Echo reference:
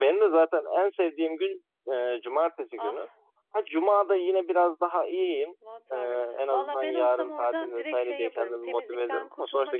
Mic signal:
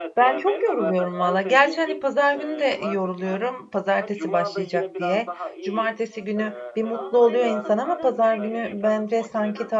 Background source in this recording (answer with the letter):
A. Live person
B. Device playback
B